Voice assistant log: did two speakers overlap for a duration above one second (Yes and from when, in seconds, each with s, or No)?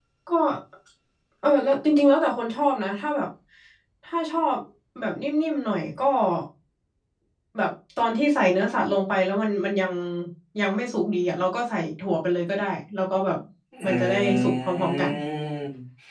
Yes, from 13.8 s